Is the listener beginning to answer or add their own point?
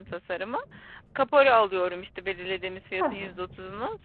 No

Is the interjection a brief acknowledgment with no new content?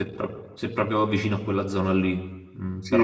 No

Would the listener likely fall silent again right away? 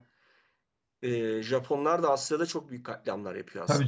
No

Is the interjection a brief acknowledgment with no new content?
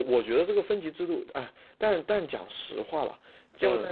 Yes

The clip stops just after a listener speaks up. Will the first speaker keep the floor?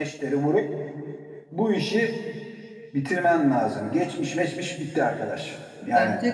Yes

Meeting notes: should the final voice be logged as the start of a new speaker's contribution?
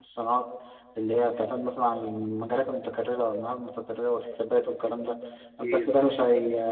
No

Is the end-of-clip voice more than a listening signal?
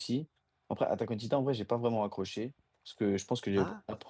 No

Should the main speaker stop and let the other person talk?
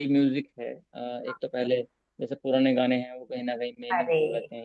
No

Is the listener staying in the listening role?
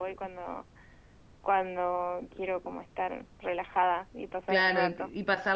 No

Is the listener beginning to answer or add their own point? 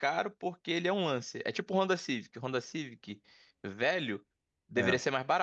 No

